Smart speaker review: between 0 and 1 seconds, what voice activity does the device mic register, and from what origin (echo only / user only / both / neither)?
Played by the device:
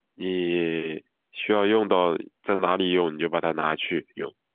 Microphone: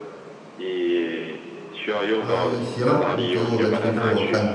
echo only